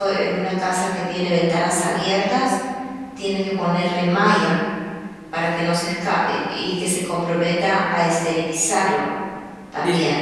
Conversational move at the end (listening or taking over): taking over